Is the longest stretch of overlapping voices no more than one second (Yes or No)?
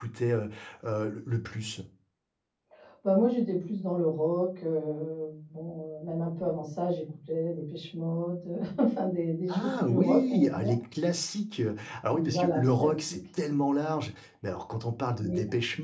No